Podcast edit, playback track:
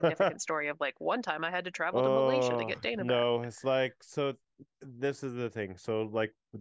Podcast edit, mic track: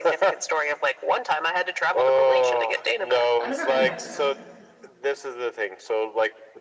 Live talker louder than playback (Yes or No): No